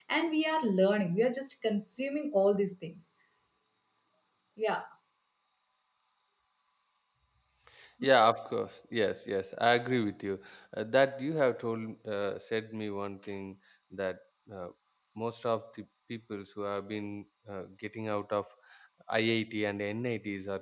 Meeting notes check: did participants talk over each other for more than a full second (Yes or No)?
No